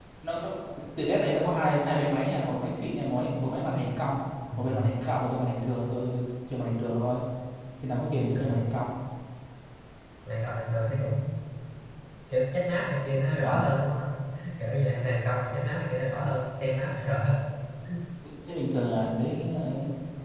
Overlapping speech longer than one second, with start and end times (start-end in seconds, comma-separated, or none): none